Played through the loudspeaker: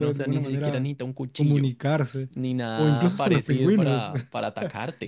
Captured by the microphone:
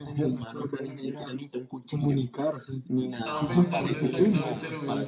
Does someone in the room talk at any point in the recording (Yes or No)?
Yes